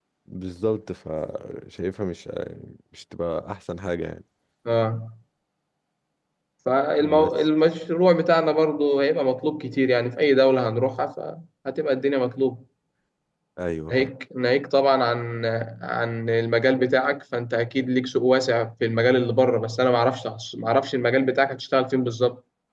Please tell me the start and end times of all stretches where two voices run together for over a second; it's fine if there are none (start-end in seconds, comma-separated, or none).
none